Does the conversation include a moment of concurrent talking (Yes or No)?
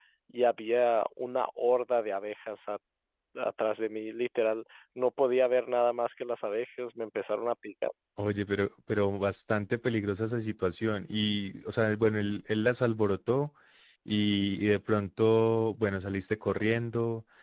No